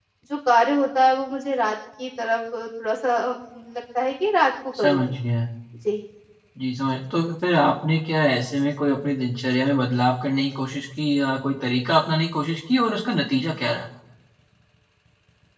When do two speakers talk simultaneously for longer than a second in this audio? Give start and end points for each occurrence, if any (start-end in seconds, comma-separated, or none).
none